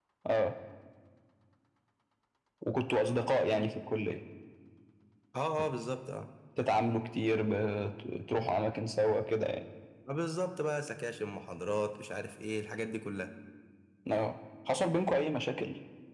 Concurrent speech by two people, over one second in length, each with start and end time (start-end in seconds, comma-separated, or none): none